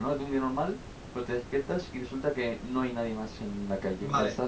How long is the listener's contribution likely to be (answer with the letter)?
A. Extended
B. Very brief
A